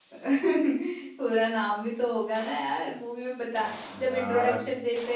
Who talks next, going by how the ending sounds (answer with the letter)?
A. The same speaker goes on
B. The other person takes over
A